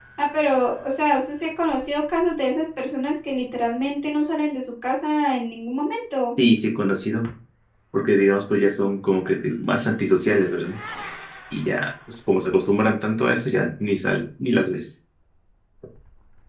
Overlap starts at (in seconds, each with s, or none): none